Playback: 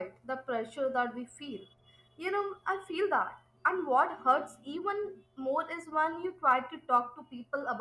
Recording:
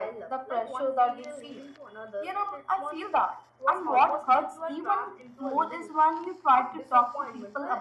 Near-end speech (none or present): present